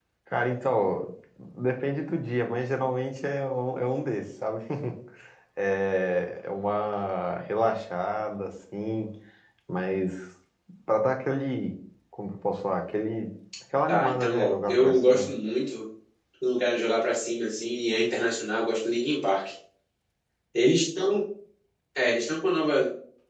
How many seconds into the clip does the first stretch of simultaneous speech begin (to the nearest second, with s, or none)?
14 s